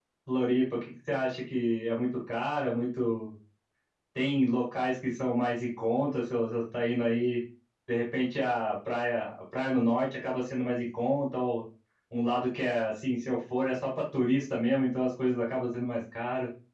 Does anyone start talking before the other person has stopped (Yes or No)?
No